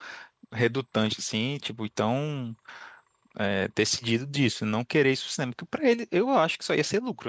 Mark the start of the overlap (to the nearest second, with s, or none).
none